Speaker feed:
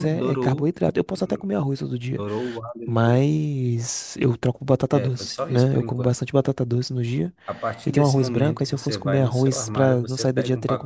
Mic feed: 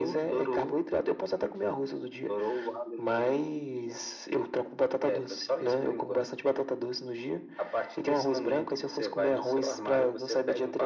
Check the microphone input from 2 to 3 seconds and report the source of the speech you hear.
echo only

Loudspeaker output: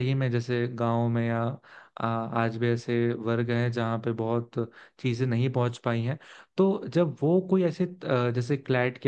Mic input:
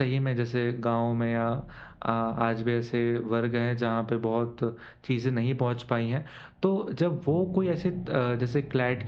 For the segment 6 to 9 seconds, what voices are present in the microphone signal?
echo only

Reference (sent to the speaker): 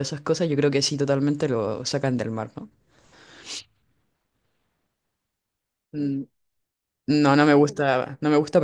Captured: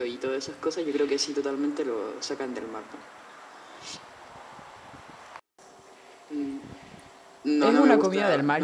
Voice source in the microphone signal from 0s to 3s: echo only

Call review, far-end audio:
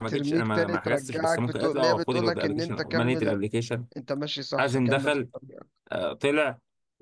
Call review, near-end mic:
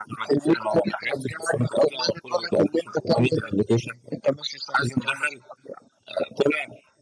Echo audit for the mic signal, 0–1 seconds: echo only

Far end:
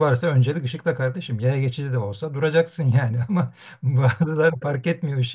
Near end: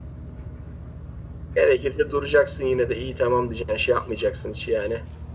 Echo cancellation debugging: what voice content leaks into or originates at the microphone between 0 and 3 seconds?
user only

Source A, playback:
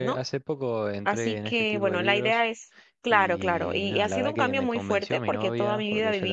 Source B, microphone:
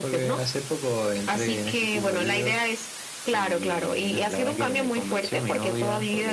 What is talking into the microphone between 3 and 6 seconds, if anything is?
echo only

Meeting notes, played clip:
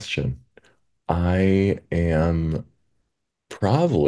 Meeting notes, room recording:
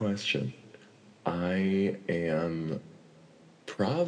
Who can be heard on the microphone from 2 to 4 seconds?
echo only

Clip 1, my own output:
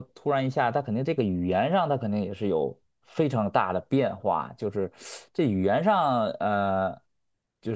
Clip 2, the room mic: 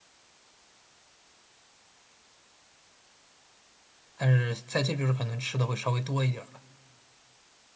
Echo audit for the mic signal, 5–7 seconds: user only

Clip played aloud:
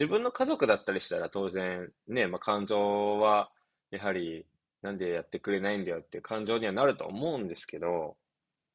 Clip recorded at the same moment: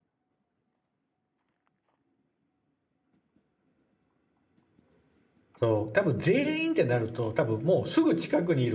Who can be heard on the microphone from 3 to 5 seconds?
neither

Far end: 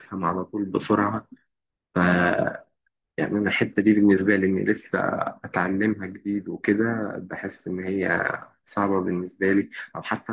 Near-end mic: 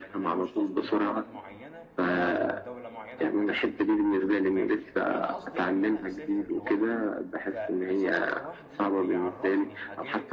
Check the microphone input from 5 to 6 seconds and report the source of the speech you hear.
both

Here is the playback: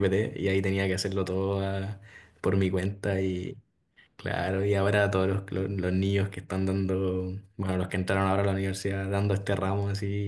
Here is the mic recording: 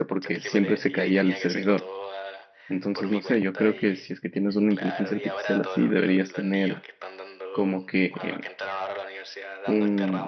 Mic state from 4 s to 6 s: both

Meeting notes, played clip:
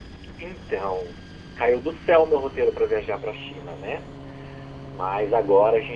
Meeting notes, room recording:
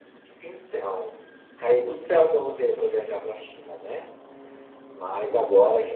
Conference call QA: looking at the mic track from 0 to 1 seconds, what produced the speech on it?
echo only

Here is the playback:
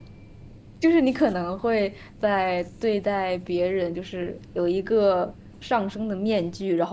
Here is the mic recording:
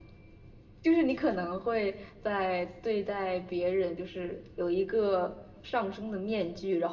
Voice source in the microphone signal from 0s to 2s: echo only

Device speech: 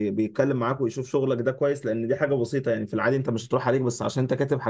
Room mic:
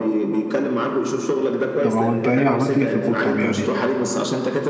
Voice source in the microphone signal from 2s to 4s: both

